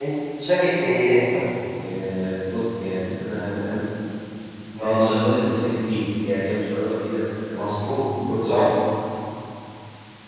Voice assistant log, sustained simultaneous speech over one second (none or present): none